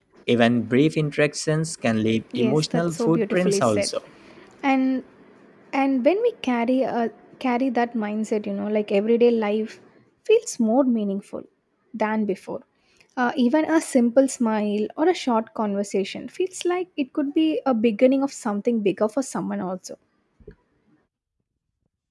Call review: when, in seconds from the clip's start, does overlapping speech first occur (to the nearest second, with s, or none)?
2 s